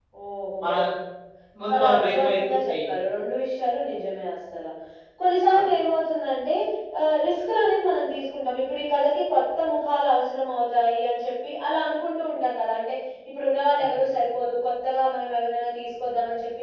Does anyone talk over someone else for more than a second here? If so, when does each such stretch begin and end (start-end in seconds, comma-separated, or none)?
1.7-2.9